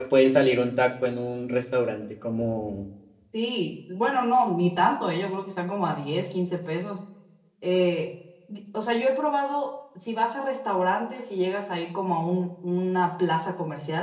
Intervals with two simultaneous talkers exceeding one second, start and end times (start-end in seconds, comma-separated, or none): none